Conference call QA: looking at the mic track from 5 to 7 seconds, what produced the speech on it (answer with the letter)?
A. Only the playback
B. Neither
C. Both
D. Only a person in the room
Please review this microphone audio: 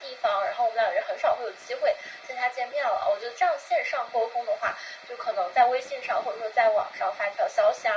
A